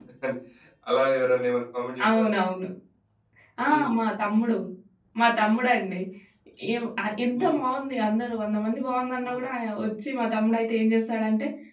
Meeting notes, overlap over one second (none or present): none